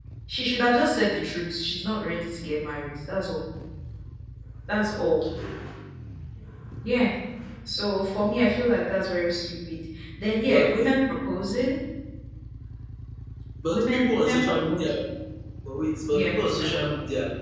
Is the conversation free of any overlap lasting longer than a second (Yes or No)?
No